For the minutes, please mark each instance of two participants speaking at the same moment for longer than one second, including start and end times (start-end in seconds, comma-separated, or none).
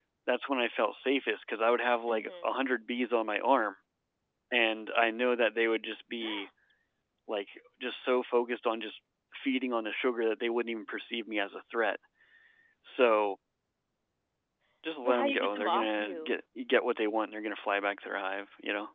15.0-16.3